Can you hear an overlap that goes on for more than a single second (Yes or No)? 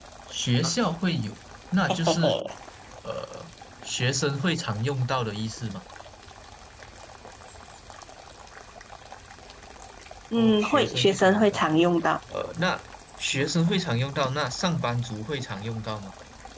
Yes